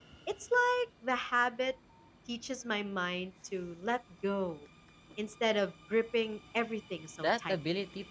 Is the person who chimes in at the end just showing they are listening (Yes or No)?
No